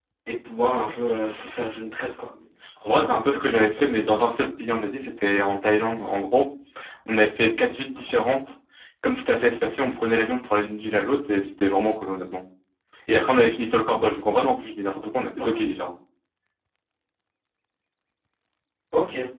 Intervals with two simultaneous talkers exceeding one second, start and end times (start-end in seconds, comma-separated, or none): 2.8-4.3